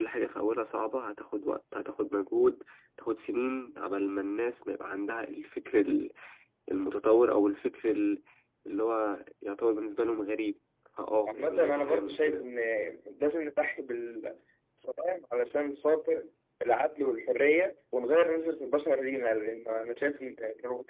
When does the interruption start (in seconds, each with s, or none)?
11.3 s